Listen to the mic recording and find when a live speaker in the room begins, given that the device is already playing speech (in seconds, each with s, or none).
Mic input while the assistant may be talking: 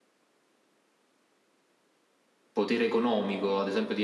2.5 s